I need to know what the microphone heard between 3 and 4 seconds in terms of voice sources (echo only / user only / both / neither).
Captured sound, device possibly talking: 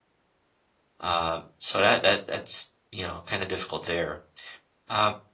user only